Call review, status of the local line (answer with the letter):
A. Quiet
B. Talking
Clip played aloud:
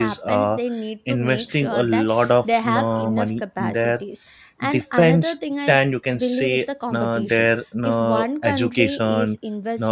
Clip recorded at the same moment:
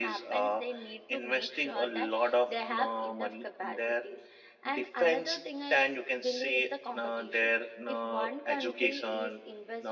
A